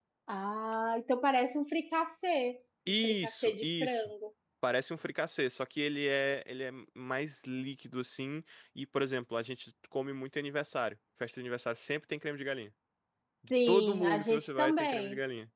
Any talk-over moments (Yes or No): Yes